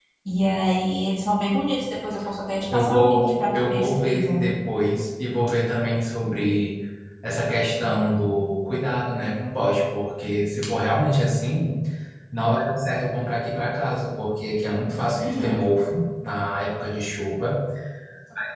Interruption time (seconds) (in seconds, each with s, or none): 2.7 s